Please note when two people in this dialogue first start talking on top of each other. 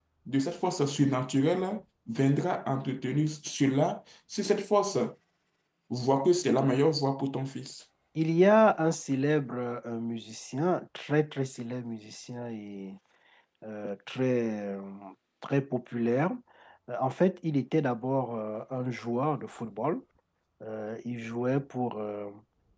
none

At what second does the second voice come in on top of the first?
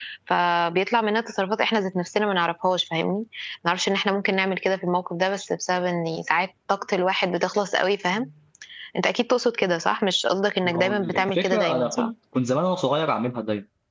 11 s

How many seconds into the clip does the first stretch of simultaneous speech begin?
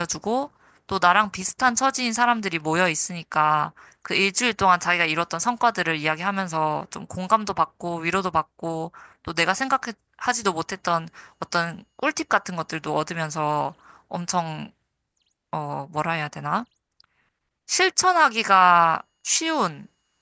none

